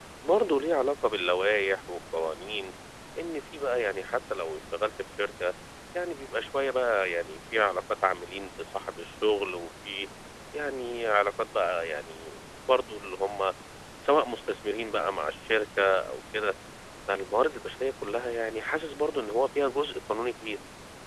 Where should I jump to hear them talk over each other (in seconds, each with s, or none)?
none